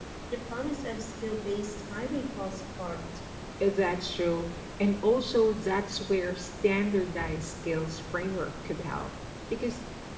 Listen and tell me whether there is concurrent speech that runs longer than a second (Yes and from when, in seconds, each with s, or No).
No